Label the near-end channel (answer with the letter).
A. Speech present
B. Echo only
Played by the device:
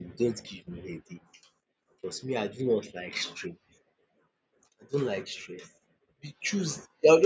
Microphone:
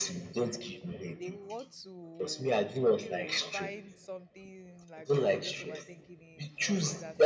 A